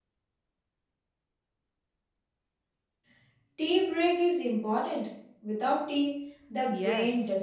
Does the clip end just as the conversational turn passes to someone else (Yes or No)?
Yes